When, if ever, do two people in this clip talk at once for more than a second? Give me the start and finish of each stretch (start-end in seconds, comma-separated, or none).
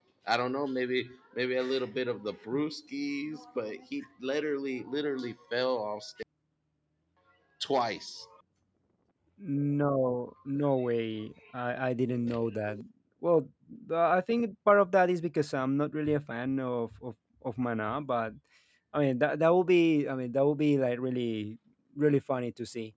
none